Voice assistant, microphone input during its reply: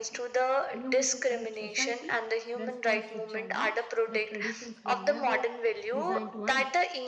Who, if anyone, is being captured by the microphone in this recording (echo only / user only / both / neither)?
both